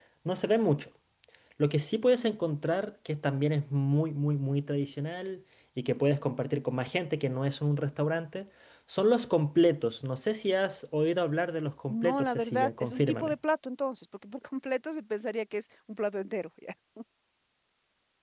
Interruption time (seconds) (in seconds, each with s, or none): 11.9 s